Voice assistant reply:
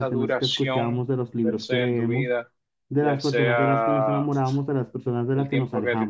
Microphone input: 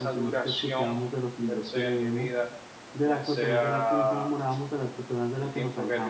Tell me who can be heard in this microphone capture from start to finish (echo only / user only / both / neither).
echo only